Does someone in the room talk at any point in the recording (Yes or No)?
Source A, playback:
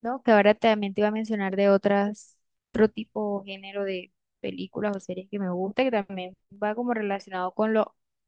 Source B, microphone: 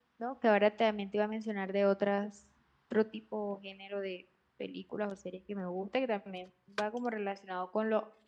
No